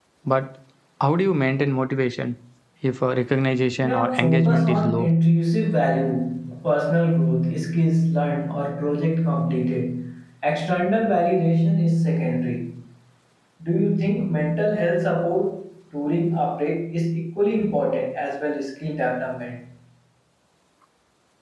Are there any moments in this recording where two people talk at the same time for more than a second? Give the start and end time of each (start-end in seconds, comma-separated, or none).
3.8-5.1